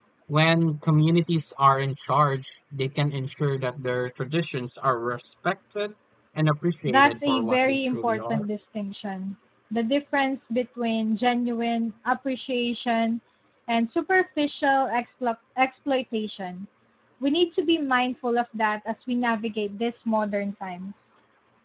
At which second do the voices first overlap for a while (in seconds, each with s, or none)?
6.9 s